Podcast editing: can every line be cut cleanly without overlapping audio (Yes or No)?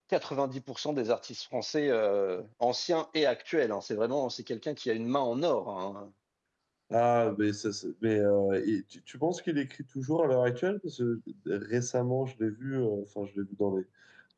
Yes